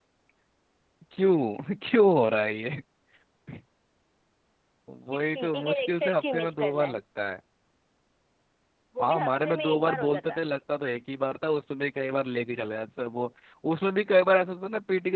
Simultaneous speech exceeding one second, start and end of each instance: 5.1-7.0, 9.0-10.4

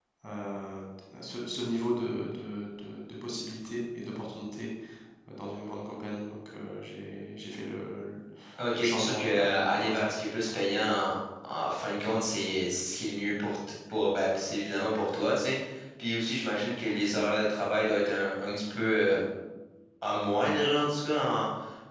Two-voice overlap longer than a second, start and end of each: 8.8-10.1

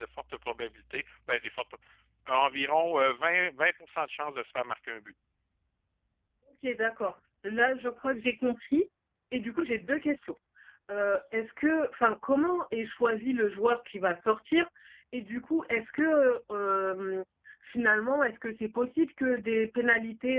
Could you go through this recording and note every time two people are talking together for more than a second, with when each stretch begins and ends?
none

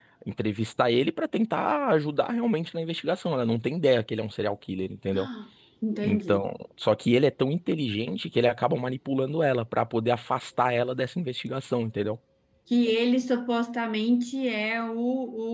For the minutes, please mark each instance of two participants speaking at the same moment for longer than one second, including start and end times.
none

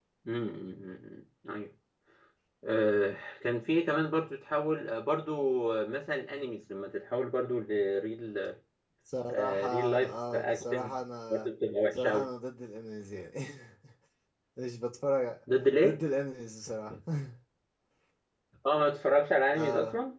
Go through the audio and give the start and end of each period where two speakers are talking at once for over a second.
9.2-10.9

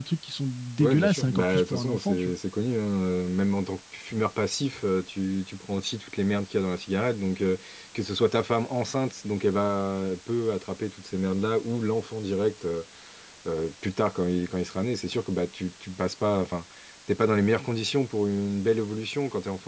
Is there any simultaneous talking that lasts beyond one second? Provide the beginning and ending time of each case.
0.8-2.3

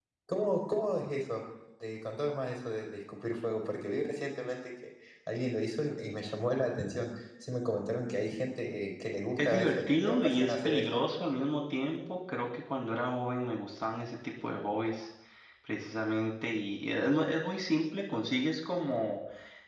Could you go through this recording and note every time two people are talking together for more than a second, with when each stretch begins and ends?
9.4-11.0

